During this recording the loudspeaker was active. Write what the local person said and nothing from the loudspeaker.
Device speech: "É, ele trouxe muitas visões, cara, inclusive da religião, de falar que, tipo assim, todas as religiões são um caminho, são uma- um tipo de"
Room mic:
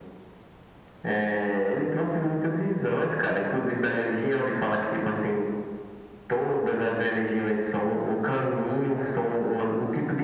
none

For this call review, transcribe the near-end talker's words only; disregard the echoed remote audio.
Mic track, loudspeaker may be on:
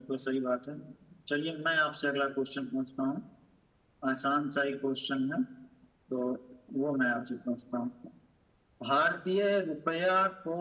none

